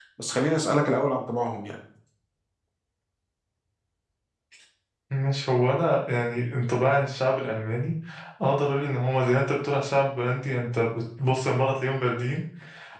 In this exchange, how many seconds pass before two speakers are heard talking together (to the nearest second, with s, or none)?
none